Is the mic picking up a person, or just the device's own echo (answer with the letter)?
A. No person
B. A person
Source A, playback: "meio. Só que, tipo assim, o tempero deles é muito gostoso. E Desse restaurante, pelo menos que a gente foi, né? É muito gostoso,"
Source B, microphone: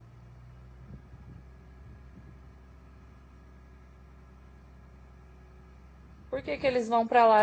B